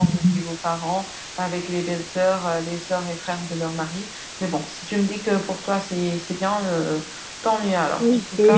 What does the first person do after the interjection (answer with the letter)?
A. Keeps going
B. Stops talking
B